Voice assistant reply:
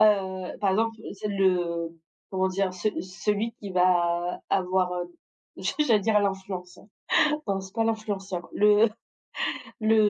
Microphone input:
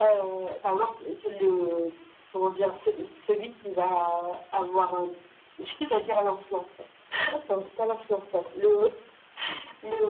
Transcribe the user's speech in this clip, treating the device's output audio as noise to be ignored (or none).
none